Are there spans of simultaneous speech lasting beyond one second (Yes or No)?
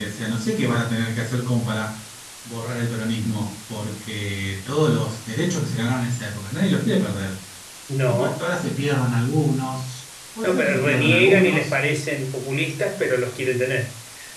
Yes